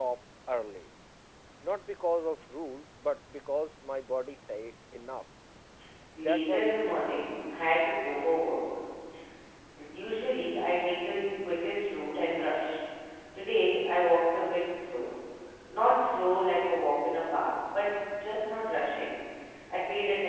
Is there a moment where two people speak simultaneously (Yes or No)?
Yes